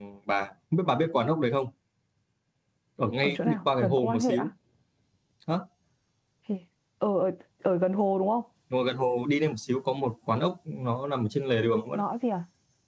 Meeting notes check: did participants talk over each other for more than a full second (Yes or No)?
Yes